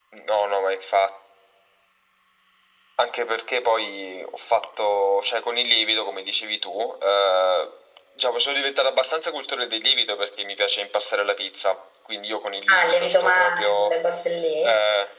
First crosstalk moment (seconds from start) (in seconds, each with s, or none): 12.7 s